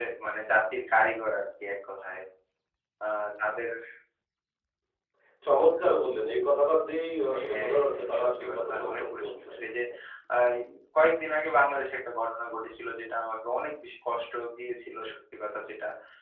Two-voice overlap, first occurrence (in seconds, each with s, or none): 7.3 s